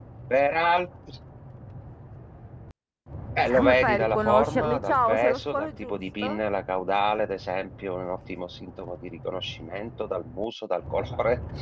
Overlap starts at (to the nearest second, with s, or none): 4 s